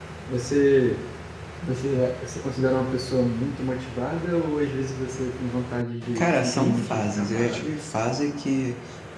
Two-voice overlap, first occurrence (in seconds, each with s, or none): 6.2 s